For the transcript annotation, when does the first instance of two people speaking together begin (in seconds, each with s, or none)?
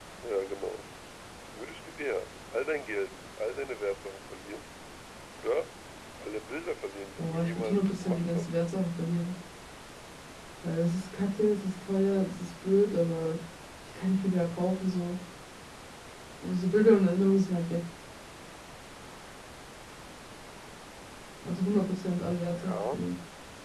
7.2 s